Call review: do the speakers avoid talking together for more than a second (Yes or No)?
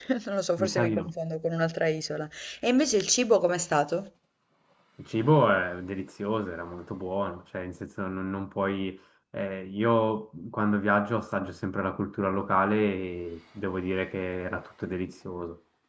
Yes